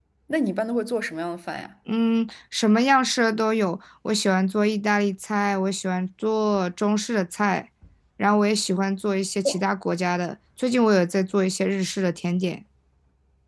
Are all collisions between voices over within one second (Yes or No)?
Yes